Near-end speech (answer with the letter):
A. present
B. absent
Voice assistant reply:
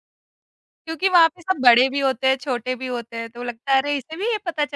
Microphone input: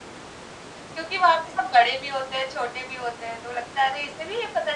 B